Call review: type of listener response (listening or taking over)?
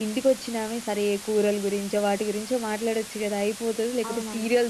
listening